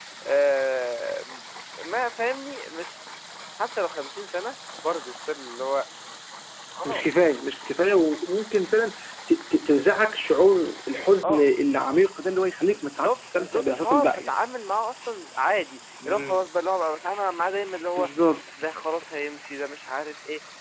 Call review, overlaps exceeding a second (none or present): present